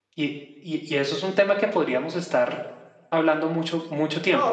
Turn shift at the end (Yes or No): Yes